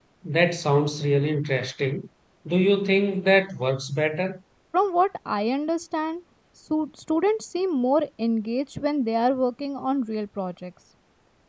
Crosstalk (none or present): none